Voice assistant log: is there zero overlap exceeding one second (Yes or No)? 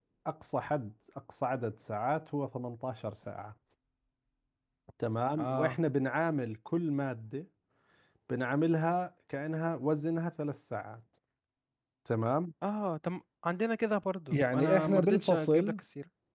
No